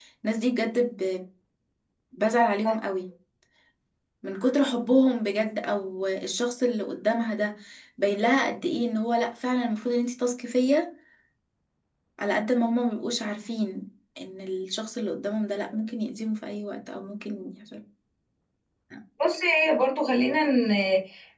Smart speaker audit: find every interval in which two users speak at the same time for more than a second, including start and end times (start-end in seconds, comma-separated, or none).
none